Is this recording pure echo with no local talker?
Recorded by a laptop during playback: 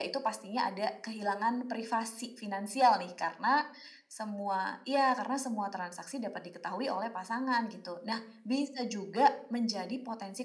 Yes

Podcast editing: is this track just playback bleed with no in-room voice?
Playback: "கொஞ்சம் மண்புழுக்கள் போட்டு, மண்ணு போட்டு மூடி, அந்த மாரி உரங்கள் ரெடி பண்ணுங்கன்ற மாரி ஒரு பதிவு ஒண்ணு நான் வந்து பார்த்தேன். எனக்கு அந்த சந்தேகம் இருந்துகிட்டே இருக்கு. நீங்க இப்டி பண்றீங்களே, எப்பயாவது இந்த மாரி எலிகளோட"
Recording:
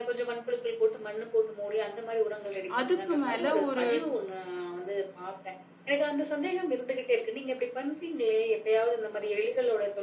No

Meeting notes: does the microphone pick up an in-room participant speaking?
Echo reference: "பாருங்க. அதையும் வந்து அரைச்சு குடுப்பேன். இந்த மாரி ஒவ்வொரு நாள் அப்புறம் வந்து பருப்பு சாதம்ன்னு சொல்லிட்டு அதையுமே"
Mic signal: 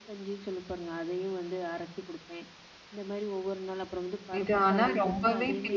Yes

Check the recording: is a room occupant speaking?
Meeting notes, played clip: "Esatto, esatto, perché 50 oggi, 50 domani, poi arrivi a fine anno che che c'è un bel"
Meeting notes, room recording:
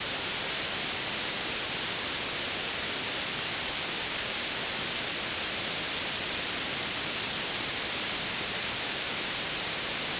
No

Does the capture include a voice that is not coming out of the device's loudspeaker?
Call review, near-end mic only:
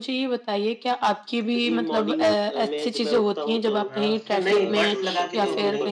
Yes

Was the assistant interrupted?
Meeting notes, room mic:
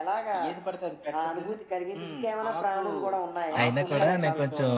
Yes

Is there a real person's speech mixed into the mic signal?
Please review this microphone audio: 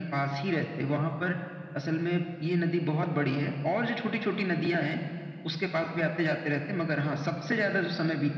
No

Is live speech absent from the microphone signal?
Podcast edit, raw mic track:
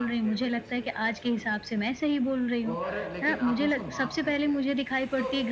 No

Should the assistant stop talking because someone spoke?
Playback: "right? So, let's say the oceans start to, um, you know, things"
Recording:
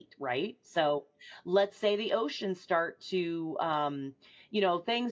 No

